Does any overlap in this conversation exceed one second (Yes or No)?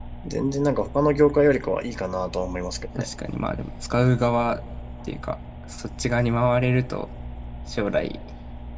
No